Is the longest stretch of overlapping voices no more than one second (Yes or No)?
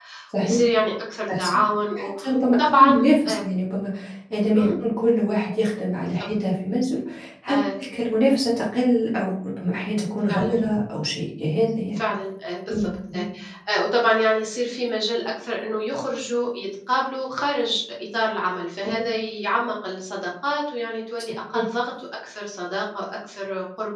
No